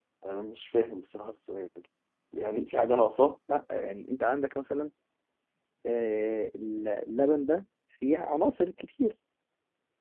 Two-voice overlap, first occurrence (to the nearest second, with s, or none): none